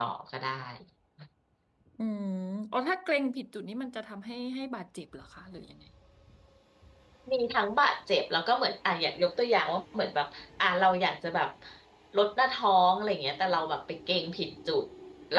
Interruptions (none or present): none